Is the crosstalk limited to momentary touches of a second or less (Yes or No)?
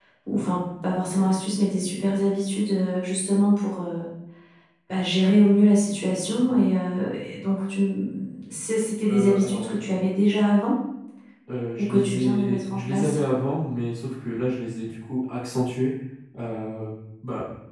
No